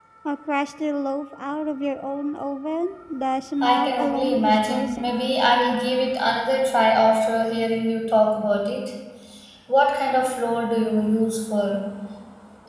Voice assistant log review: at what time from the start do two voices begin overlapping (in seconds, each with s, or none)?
3.6 s